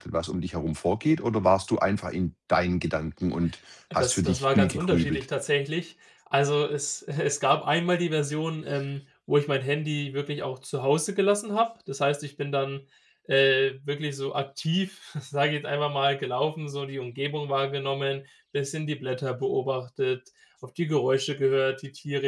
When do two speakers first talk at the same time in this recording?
3.9 s

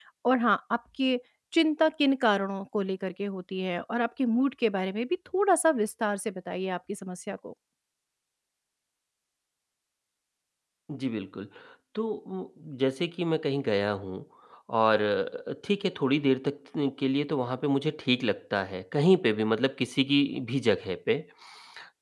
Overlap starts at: none

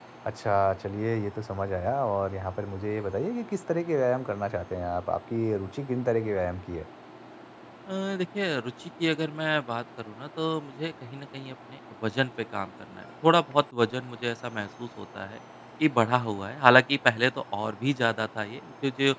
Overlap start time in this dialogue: none

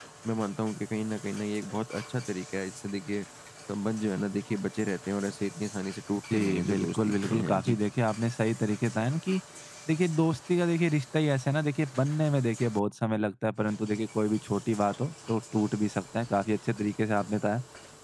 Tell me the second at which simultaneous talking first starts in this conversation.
6.3 s

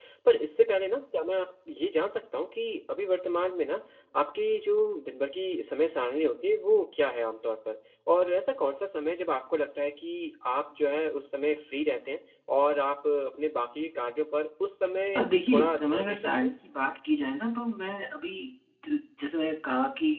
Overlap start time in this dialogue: 15.2 s

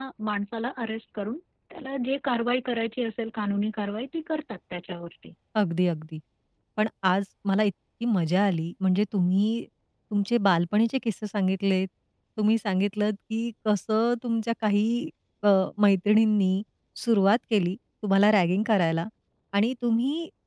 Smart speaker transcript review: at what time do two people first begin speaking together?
none

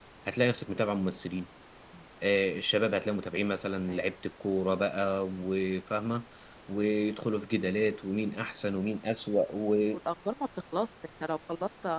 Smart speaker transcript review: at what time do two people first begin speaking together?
none

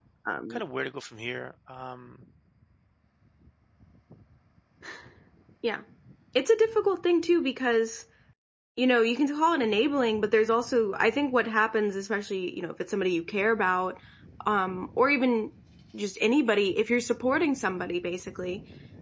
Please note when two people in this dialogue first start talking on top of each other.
none

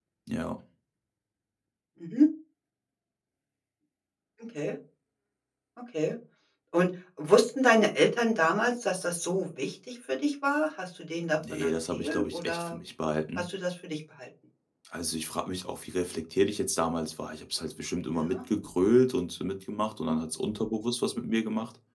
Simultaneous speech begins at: 11.4 s

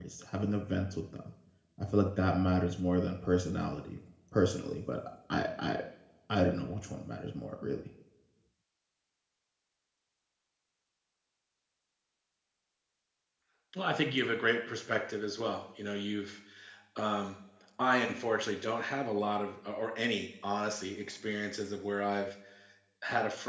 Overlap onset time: none

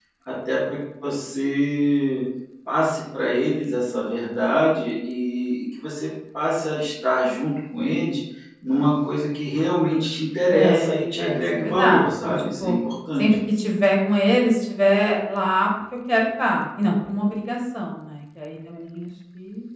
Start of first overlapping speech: 10.4 s

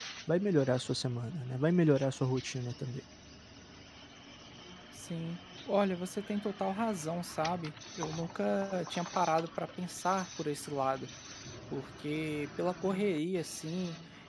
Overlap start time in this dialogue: none

